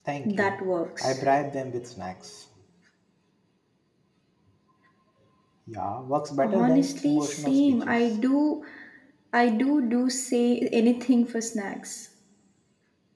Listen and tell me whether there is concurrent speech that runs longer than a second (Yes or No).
Yes